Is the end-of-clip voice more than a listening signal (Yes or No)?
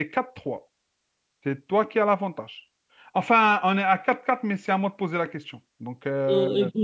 Yes